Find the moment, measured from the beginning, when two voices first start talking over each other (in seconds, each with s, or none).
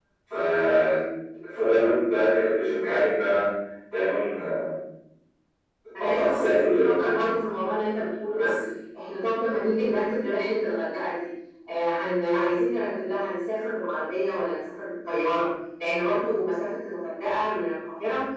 6.0 s